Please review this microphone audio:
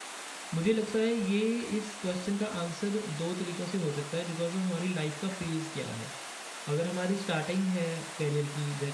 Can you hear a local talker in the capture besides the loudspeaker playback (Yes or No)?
Yes